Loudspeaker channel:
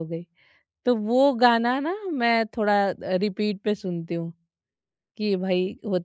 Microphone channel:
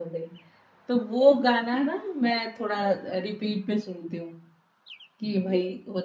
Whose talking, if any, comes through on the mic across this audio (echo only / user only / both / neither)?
echo only